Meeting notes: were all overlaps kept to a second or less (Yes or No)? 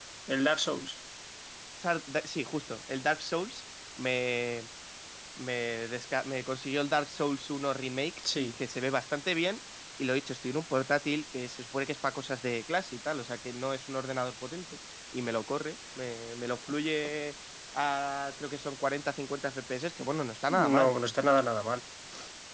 Yes